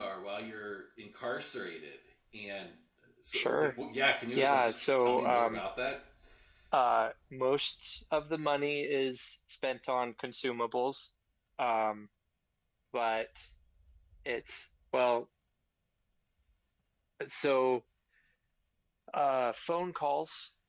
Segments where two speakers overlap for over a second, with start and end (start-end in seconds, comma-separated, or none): 4.3-5.6